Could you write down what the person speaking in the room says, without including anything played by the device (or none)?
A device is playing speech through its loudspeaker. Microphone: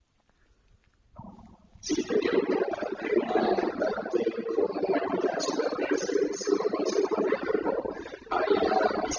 Ah,